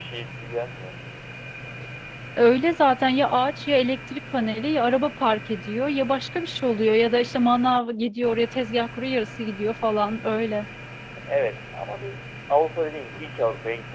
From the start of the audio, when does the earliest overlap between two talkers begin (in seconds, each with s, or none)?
none